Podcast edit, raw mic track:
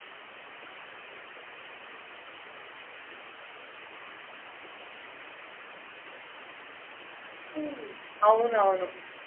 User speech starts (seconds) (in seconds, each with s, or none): 7.6 s